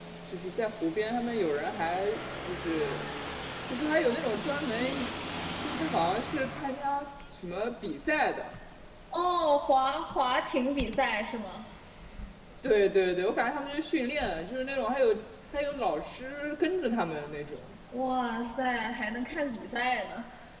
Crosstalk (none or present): none